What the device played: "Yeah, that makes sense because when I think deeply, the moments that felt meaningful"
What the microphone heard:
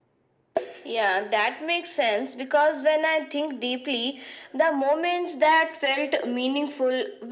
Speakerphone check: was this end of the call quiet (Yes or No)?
Yes